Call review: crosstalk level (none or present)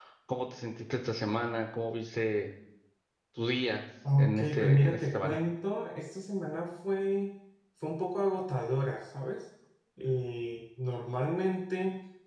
present